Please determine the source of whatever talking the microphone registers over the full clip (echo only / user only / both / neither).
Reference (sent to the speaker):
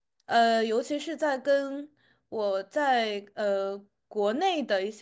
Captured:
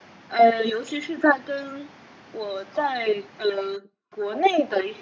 echo only